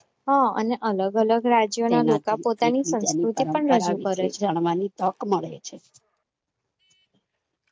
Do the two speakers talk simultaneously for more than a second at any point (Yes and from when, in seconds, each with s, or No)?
Yes, from 1.9 s